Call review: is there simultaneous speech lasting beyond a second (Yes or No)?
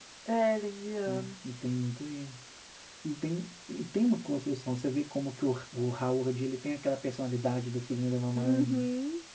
No